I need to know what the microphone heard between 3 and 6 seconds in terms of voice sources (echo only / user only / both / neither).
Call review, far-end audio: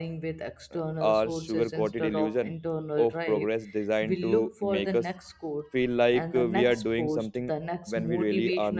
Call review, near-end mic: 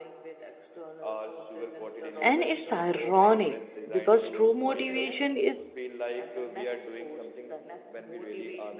both